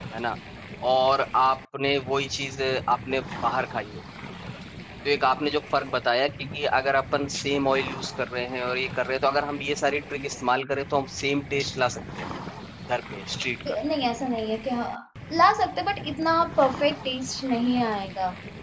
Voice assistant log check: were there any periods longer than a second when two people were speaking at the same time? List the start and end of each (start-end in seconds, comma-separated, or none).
none